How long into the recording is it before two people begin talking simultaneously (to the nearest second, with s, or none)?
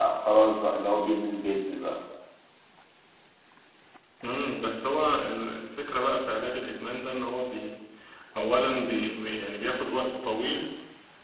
none